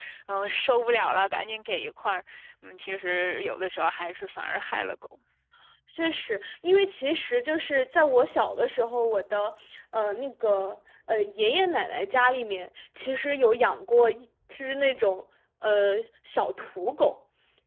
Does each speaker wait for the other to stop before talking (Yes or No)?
Yes